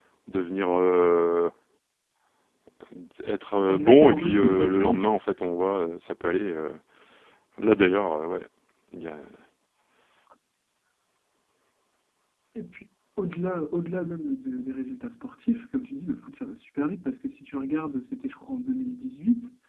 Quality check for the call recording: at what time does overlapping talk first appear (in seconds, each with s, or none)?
3.7 s